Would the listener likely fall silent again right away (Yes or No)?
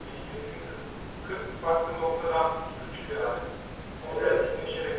Yes